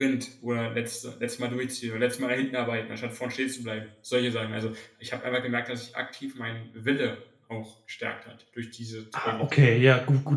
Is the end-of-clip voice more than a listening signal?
Yes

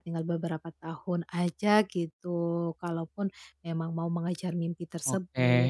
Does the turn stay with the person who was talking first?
No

